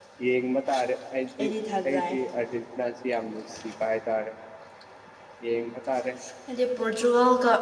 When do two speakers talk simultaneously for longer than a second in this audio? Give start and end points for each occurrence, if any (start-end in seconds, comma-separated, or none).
none